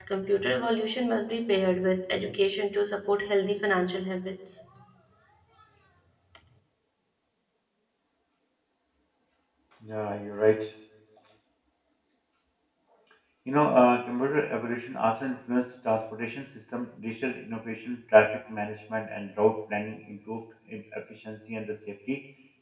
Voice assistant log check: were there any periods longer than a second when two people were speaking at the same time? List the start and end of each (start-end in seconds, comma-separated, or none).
none